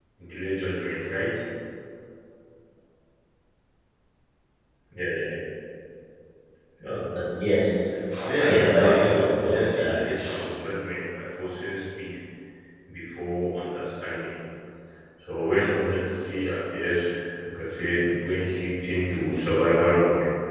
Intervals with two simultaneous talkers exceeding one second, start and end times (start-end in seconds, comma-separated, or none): 8.5-9.9